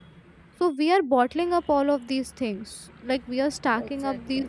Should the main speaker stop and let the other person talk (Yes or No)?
No